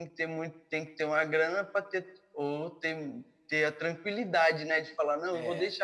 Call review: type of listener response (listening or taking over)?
listening